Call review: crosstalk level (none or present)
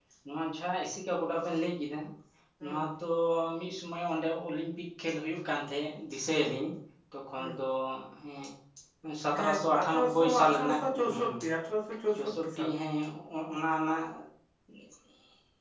present